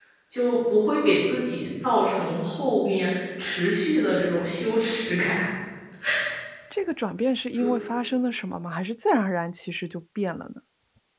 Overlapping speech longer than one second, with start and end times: none

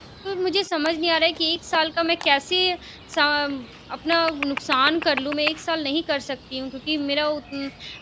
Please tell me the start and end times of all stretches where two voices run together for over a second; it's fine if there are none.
none

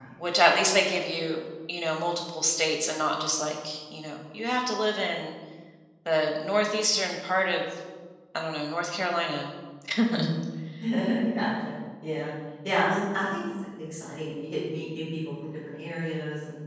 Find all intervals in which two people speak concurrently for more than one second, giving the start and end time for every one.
none

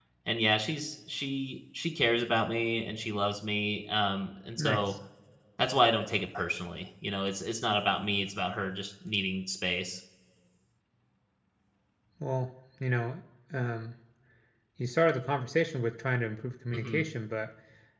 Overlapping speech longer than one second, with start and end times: none

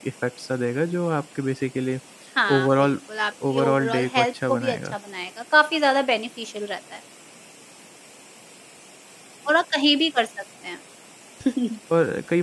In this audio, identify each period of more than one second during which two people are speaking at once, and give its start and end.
3.5-5.0

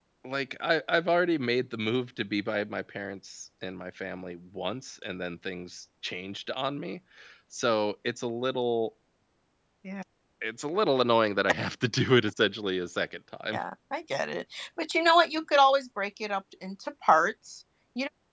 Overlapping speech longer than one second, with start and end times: none

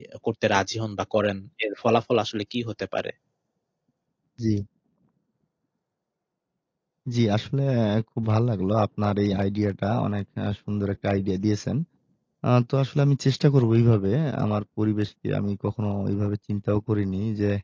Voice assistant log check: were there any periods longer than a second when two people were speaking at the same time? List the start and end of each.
none

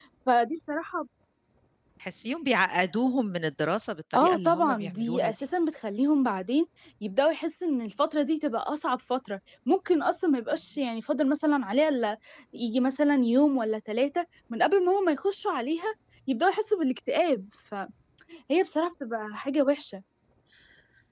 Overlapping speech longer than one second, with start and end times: 4.1-5.5

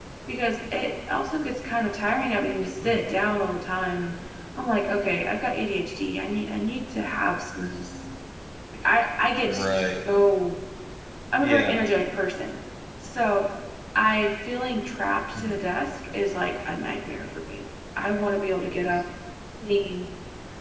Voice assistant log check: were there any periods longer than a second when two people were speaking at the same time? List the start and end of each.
none

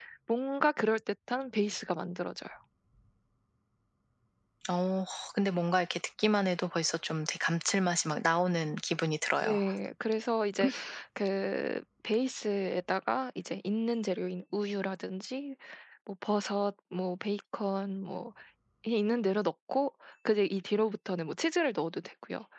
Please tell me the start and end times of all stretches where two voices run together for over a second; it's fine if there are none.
none

